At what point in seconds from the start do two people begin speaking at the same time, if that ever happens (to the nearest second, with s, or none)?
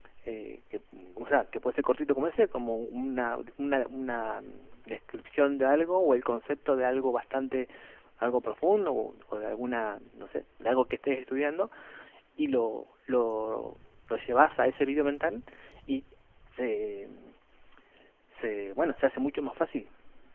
none